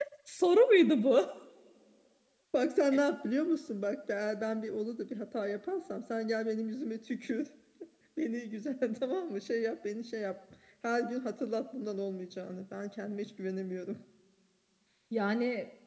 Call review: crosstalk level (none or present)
none